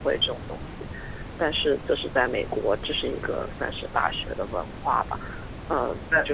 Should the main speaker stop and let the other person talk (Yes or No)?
Yes